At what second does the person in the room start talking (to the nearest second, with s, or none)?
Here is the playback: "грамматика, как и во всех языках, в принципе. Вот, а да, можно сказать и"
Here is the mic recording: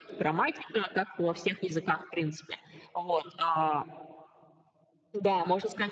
none